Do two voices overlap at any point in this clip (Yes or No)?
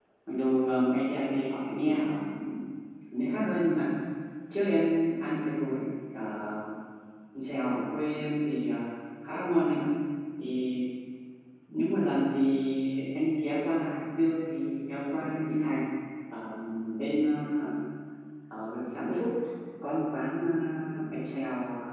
No